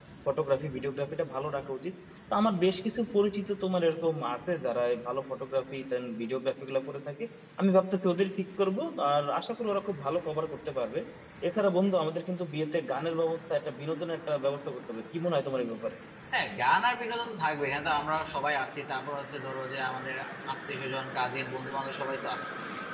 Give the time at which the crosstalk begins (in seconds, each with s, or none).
none